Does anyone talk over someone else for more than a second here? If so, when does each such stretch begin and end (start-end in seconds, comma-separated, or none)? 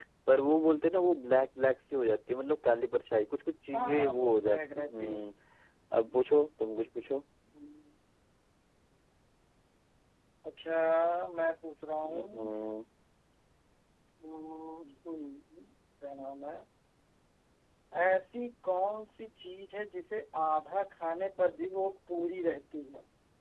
3.7-5.2